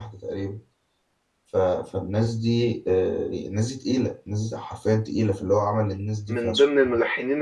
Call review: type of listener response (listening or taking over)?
taking over